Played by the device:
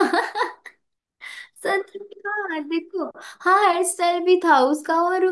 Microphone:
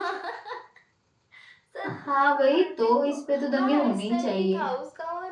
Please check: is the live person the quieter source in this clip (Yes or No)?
No